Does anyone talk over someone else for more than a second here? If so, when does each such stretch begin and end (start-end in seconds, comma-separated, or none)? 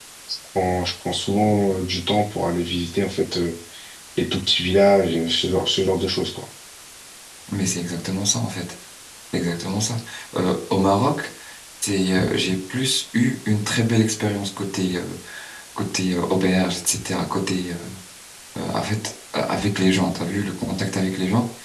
none